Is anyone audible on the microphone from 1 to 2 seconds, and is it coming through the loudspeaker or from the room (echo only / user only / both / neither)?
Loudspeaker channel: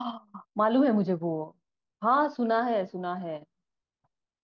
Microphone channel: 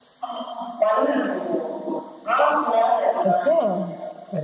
echo only